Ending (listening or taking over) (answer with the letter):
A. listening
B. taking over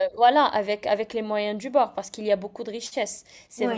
A